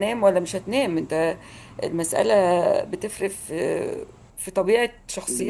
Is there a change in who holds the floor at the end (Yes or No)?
No